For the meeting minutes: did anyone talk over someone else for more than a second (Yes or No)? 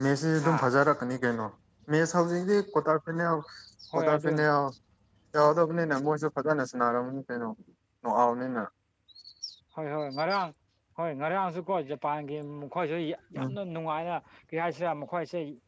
No